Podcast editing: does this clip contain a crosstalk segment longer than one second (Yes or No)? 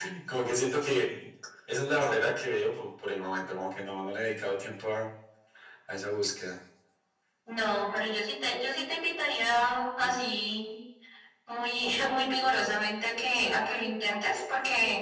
No